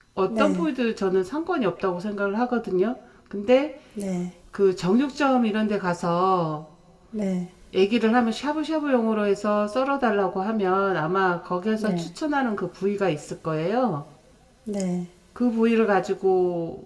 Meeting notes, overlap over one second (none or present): none